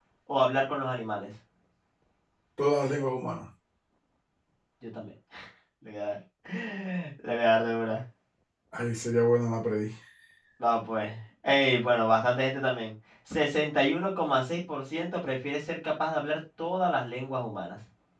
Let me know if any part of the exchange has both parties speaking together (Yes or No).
No